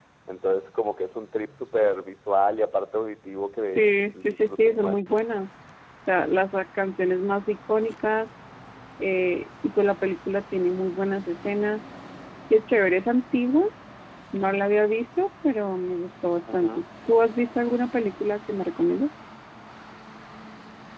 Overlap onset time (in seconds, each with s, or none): 3.8 s